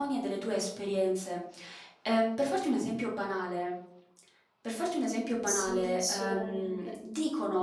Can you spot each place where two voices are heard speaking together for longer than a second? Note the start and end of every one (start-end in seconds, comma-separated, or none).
5.5-7.0